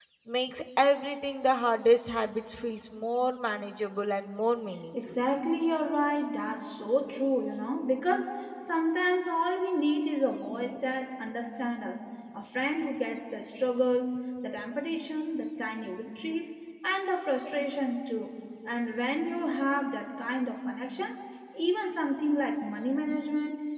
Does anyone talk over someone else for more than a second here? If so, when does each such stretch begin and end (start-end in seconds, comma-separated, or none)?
none